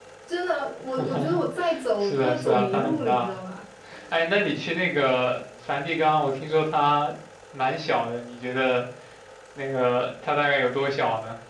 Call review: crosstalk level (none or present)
present